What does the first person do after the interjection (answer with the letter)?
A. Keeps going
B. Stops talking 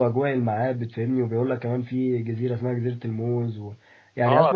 B